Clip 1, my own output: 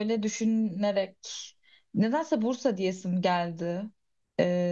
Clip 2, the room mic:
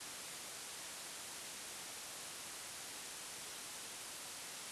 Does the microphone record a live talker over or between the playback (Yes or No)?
No